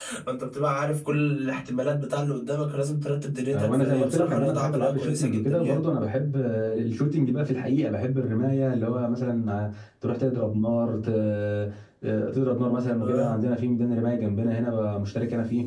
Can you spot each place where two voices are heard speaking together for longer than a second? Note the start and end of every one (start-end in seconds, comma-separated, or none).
3.5-5.8